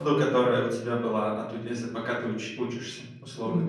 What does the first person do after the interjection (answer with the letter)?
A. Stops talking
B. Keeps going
A